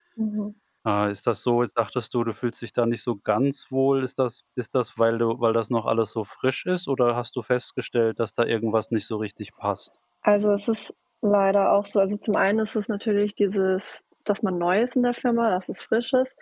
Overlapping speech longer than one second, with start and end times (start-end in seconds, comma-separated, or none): none